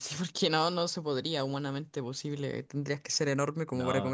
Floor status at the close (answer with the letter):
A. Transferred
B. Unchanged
B